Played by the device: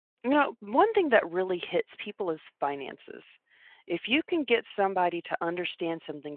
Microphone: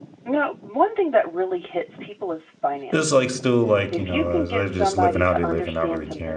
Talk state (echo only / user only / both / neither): both